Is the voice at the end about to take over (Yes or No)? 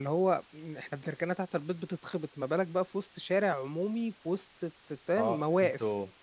Yes